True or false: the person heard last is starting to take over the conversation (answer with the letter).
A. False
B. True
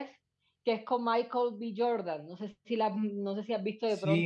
B